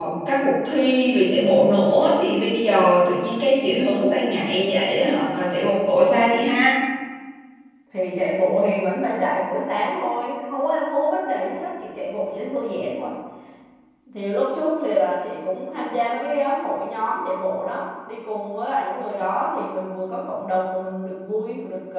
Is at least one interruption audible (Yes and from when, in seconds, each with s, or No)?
No